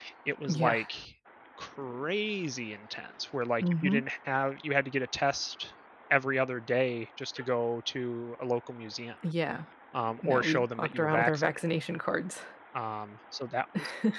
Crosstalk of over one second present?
Yes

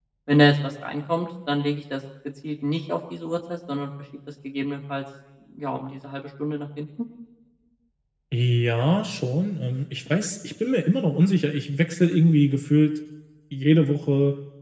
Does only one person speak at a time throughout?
Yes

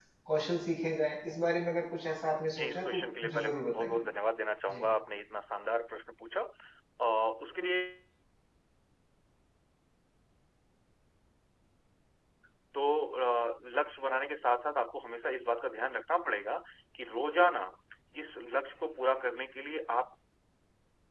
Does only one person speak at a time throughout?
No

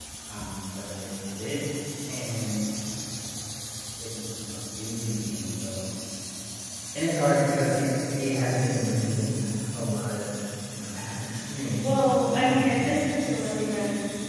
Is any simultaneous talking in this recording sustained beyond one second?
Yes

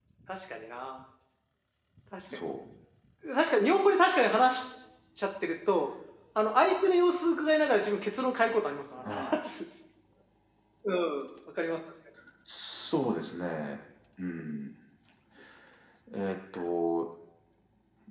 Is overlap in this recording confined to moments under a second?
Yes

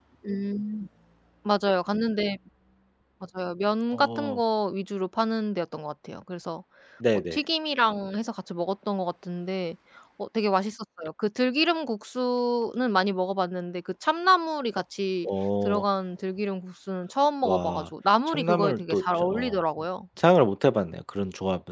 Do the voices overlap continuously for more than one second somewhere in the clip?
Yes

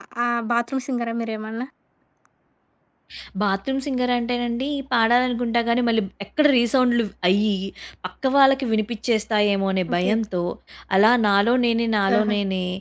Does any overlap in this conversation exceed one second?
No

